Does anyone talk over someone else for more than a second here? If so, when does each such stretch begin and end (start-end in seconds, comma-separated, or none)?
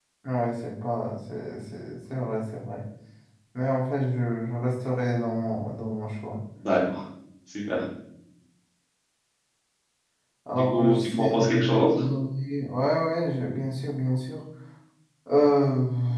10.5-11.9